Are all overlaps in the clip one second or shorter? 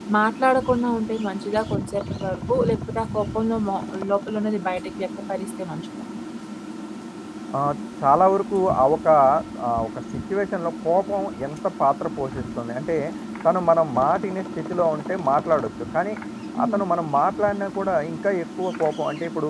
Yes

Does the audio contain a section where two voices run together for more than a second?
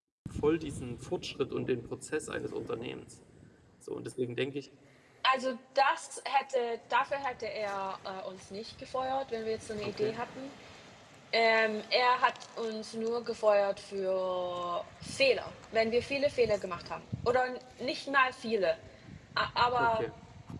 No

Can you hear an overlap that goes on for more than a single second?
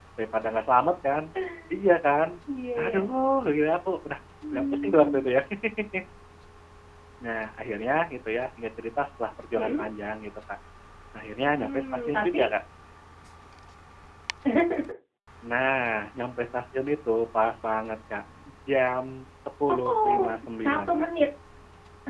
Yes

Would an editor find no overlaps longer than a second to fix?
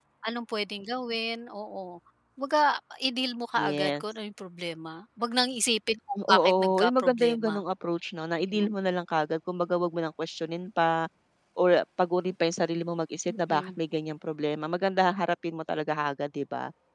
No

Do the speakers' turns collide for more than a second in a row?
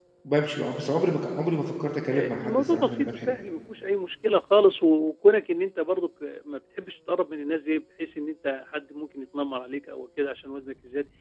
Yes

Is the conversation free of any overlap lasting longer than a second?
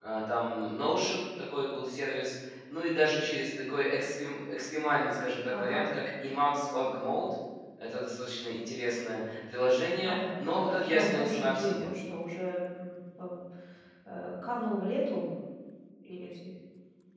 No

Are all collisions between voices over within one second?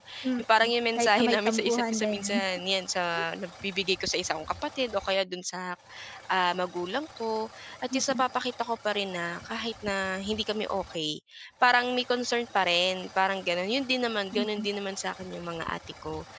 No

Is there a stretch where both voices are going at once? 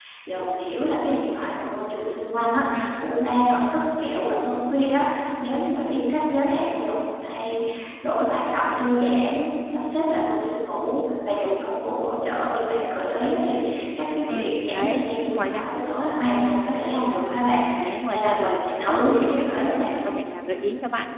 Yes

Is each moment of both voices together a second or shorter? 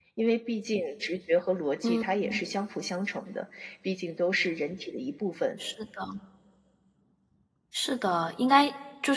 Yes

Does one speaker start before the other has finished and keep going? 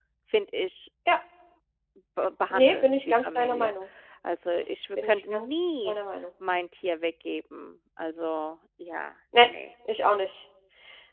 Yes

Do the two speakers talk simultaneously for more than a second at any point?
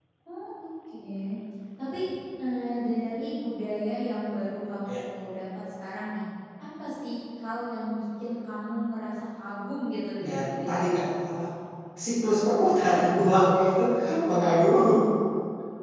No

